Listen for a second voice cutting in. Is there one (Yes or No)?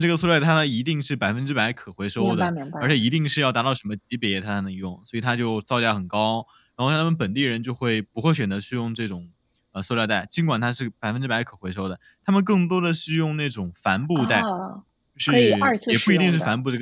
Yes